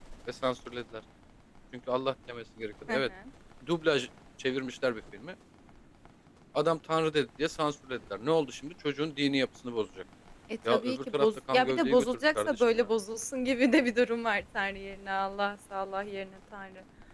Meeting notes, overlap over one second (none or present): present